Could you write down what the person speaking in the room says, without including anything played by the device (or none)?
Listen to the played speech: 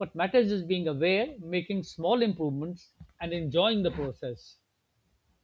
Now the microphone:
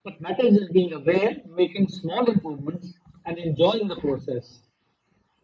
none